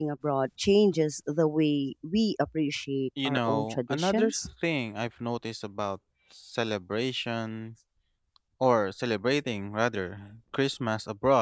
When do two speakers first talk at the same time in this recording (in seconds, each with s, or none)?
3.2 s